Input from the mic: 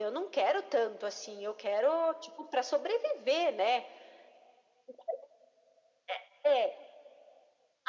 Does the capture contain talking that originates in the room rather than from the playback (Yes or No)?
No